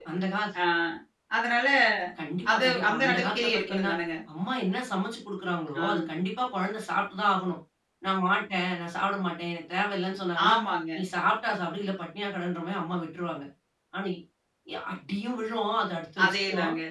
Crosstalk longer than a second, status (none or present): present